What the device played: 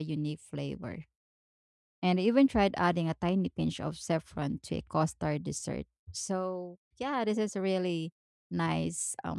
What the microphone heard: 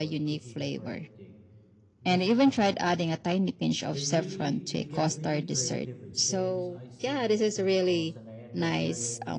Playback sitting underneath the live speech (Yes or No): No